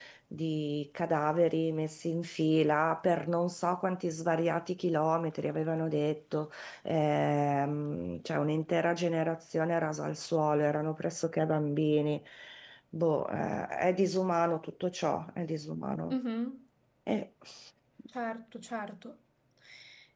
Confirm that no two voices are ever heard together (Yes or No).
Yes